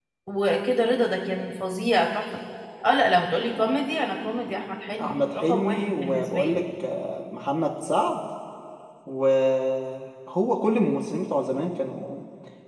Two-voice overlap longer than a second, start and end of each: 5.0-6.6

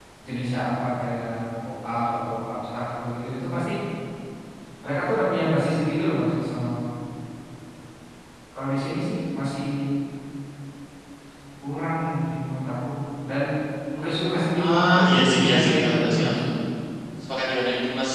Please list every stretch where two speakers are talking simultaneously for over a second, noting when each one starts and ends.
14.6-16.3

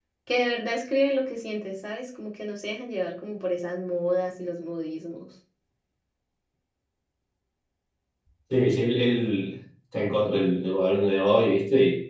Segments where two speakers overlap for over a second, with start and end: none

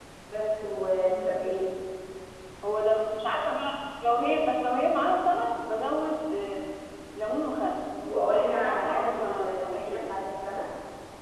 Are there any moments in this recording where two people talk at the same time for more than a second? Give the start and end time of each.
8.3-10.1

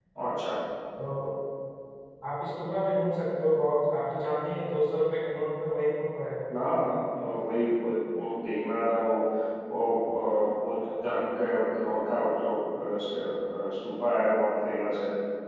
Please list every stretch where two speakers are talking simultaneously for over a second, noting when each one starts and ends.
none

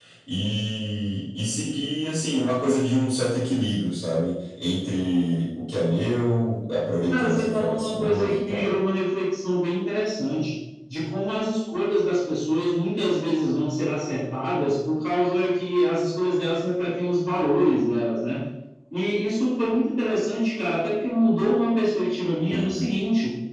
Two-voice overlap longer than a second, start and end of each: 7.1-8.7

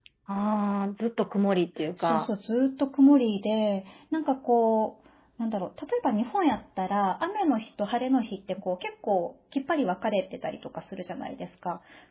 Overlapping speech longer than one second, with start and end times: none

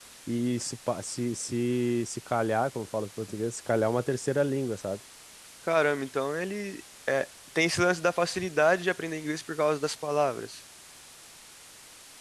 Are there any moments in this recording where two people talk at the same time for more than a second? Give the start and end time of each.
none

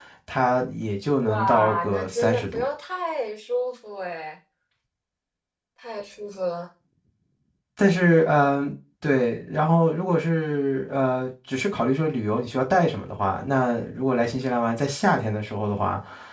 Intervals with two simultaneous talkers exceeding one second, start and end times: 1.2-2.6

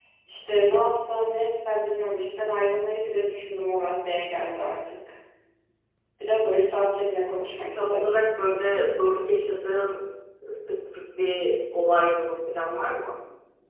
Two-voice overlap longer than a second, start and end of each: none

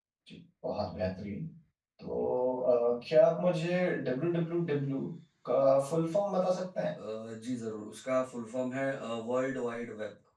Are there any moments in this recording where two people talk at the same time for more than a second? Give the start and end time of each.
none

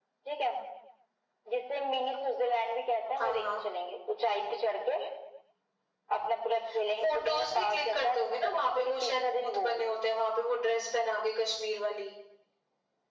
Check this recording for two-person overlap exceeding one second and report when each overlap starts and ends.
7.0-9.7

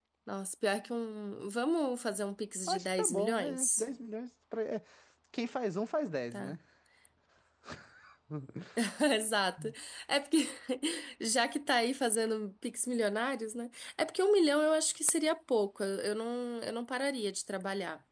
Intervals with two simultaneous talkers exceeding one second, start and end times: 2.6-3.9

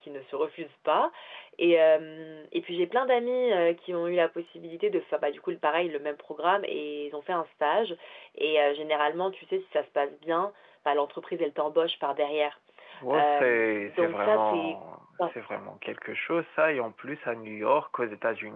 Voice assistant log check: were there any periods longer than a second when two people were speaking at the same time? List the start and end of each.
13.1-14.8

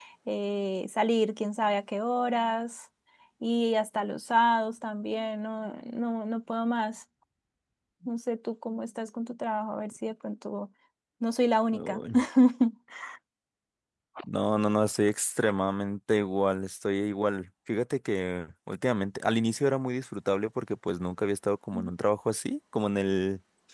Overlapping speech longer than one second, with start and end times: none

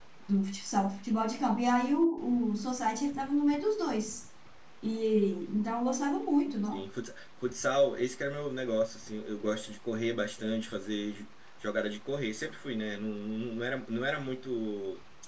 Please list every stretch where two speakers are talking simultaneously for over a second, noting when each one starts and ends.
none

